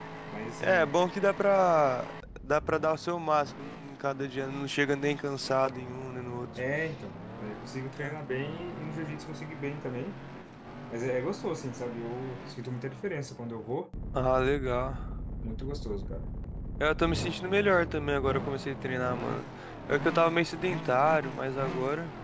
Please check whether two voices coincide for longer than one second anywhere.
No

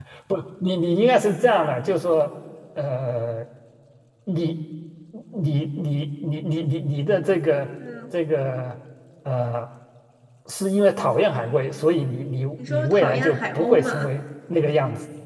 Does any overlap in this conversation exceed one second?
Yes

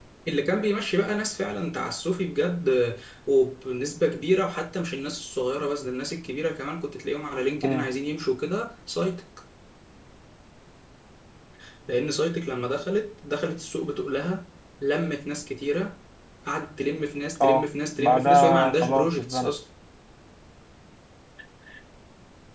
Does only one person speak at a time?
No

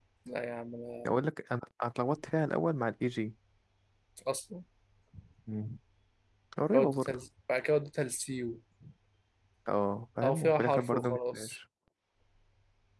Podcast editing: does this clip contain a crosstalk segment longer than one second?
Yes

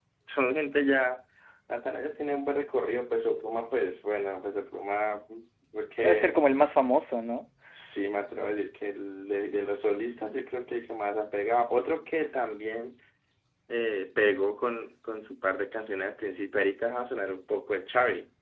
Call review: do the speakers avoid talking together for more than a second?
Yes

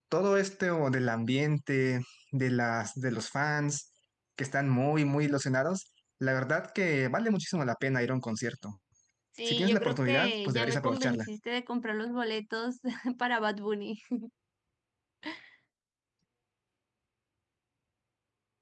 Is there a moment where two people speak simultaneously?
Yes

